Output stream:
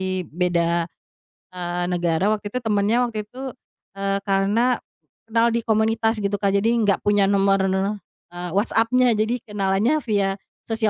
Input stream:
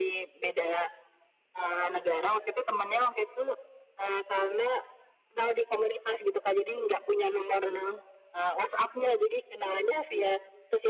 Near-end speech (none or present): none